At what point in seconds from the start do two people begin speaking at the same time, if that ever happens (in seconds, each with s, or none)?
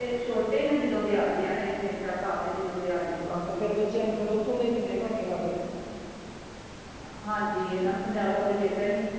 none